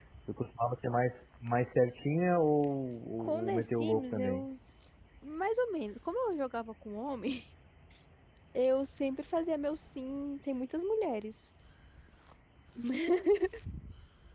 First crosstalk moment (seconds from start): 3.2 s

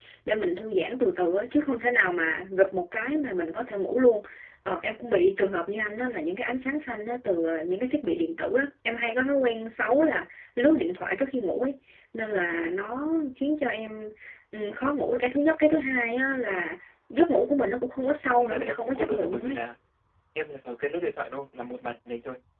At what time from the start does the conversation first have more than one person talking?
18.4 s

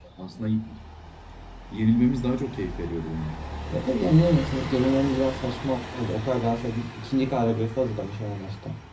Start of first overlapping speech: none

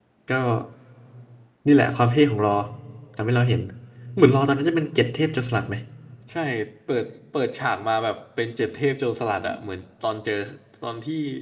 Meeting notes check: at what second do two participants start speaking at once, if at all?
none

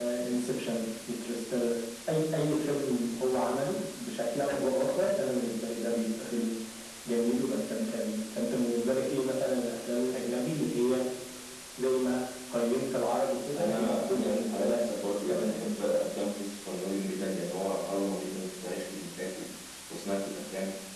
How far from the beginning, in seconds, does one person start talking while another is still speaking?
13.6 s

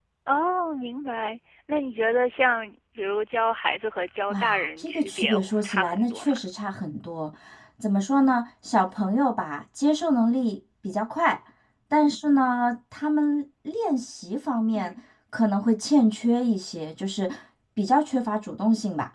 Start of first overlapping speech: 4.3 s

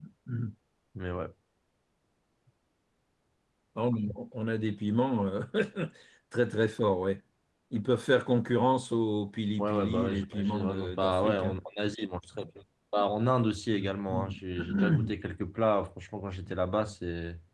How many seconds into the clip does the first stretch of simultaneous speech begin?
9.6 s

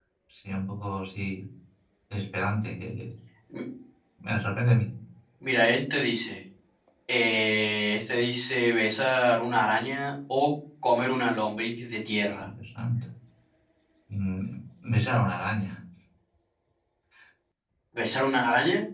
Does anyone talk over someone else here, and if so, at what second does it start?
none

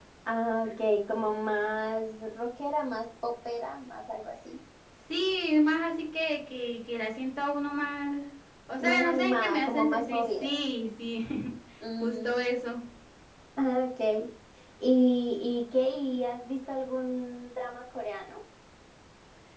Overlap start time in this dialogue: 8.8 s

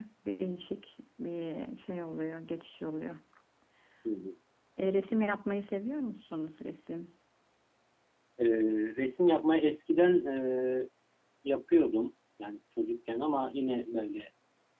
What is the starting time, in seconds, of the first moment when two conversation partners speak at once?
none

